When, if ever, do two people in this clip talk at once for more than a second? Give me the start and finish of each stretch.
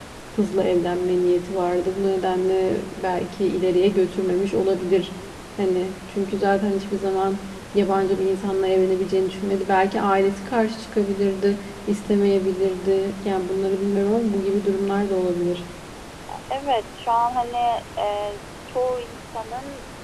none

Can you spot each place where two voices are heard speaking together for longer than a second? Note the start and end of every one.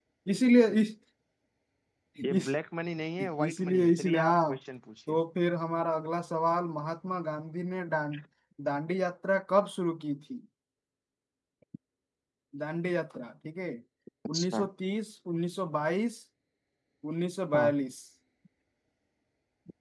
3.2-4.5

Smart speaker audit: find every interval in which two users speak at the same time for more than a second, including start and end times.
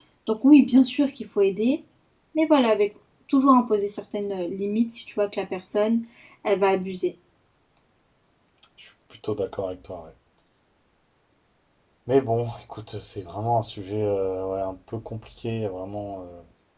none

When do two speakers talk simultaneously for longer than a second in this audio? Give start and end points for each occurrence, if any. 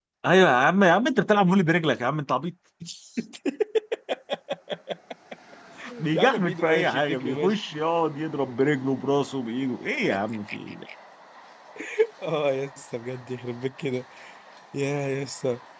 6.1-7.6

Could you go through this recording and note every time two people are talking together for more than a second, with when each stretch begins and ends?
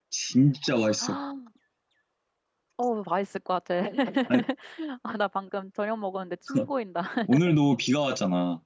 none

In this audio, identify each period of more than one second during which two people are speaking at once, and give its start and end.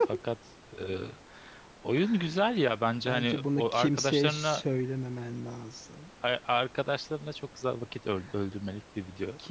3.0-4.6

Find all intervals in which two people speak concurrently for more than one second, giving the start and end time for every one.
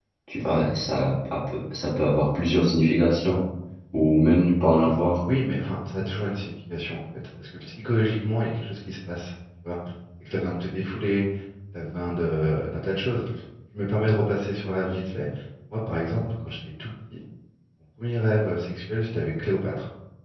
none

